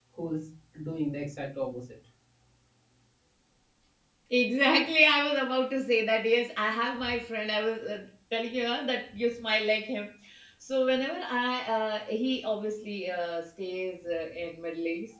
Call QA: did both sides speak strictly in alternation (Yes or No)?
Yes